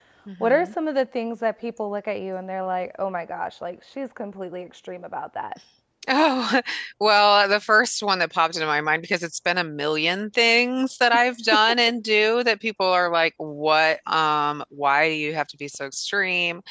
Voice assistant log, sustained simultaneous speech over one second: none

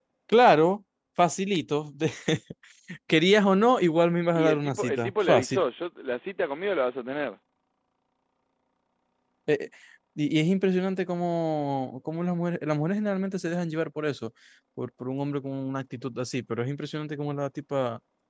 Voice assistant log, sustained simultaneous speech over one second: present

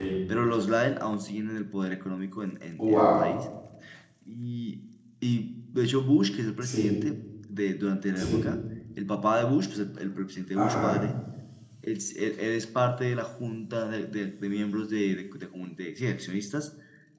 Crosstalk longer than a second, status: none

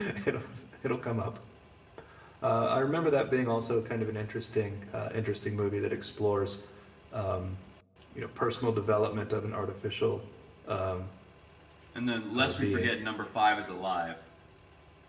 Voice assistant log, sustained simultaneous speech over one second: none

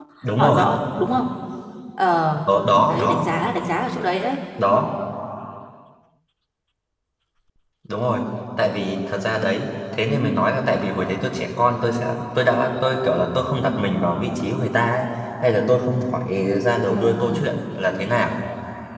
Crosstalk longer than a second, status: none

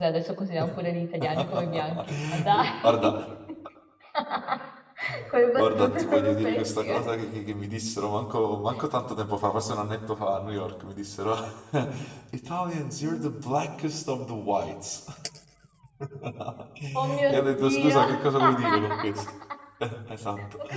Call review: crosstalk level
present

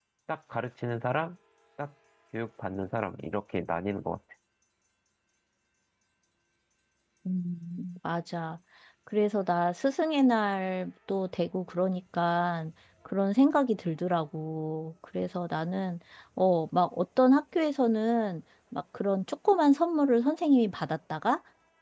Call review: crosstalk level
none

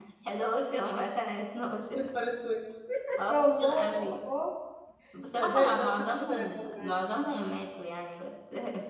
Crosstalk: present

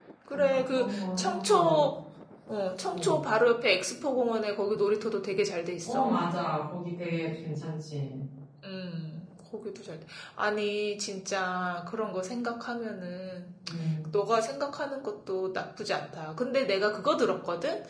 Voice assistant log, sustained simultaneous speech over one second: present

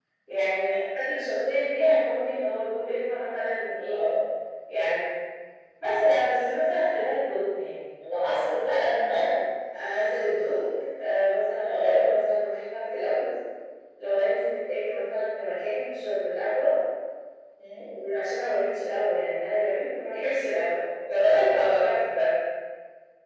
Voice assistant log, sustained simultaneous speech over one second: none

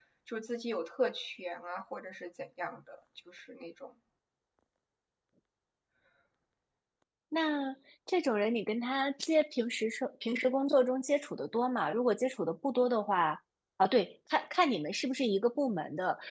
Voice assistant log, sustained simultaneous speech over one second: none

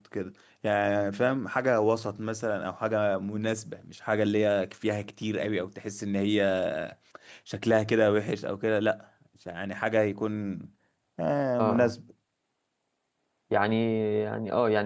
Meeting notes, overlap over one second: none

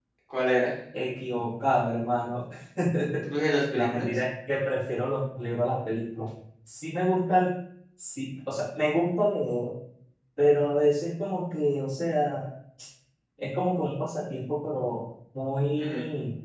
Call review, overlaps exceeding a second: none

